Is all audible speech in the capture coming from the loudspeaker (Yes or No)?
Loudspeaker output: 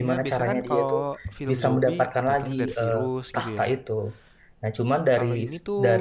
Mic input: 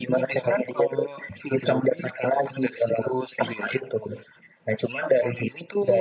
Yes